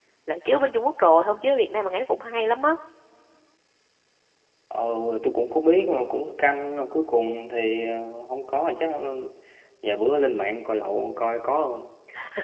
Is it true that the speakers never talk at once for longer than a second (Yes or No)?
Yes